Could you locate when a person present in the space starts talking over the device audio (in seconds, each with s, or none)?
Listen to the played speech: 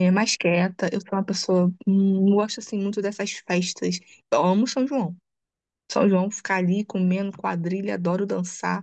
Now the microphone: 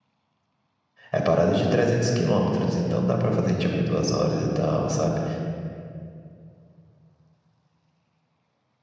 1.1 s